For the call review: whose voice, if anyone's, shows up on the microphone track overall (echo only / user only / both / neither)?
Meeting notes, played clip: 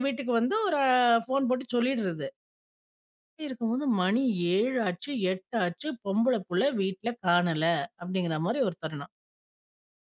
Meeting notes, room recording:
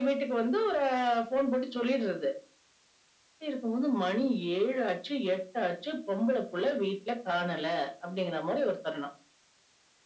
echo only